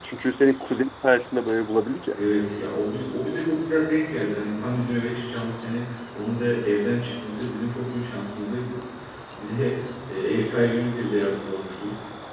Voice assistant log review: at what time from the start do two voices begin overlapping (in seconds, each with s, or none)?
none